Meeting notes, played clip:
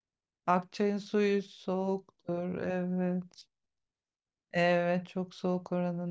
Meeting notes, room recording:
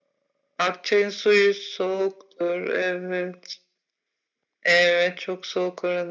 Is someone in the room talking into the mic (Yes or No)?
No